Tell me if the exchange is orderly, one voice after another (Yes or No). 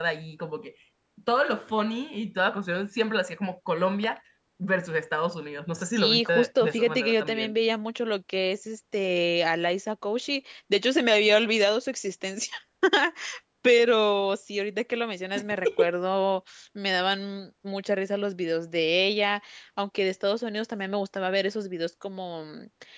No